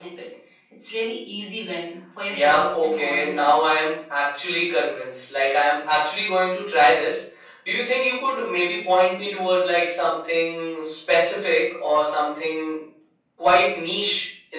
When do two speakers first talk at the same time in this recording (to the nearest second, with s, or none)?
2 s